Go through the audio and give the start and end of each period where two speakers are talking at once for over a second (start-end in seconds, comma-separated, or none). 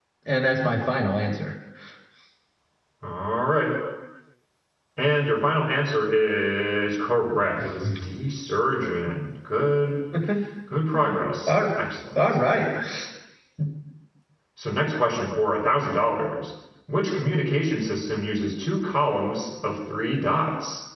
none